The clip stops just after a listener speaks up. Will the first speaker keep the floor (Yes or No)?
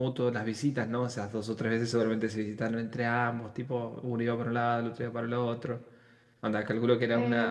No